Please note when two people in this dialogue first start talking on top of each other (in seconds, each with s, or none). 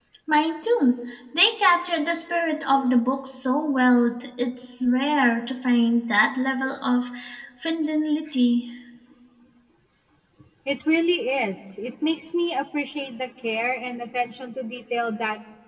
none